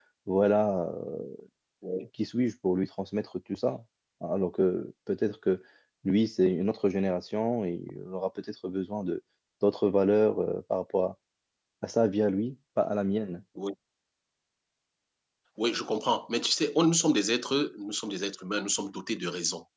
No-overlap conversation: Yes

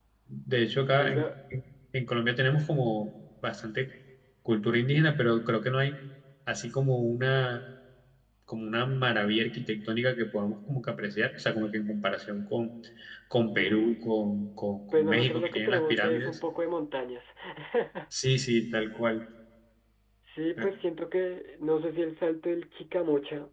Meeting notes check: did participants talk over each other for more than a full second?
Yes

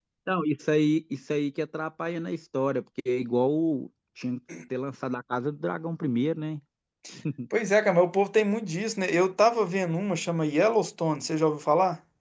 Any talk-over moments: No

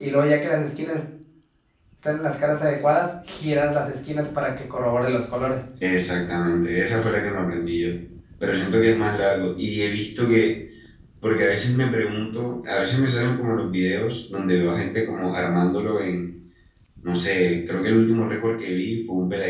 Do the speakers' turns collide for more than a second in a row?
No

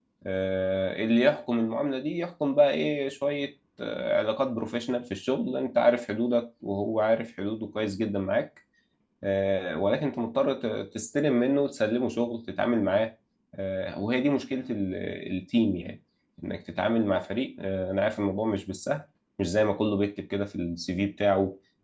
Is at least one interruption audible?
No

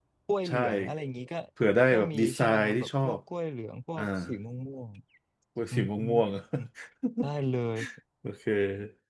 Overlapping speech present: Yes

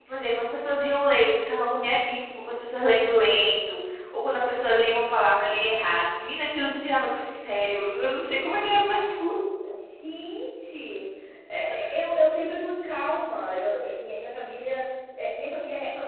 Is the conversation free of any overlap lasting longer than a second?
Yes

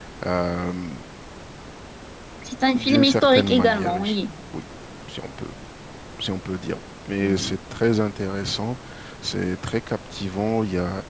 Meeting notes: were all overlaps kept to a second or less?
No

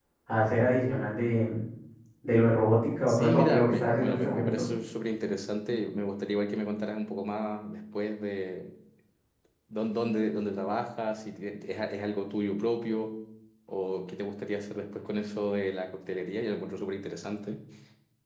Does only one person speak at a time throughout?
No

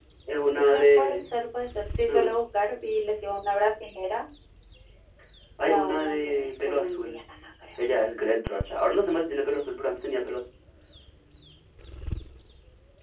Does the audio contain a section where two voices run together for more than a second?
Yes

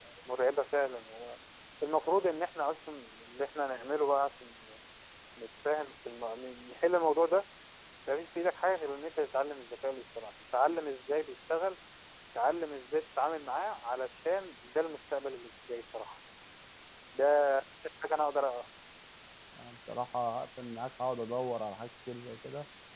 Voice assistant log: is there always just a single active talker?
Yes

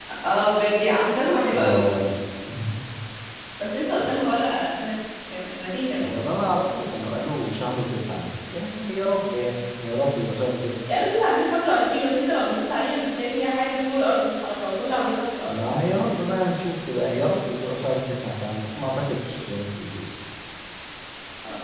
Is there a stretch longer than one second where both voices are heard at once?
No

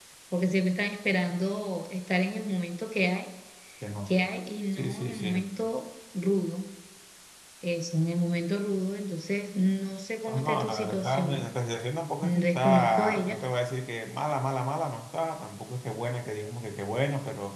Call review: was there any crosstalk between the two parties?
Yes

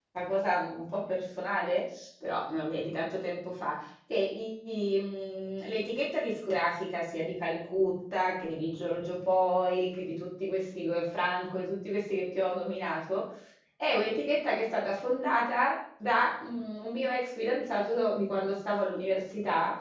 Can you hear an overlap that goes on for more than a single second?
No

